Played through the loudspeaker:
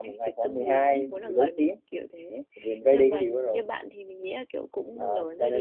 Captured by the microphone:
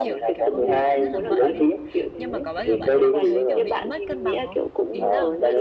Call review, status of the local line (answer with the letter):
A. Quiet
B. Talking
B